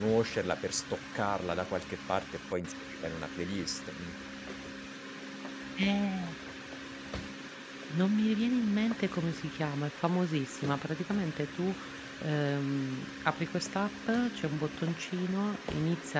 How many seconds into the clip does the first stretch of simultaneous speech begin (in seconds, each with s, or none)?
none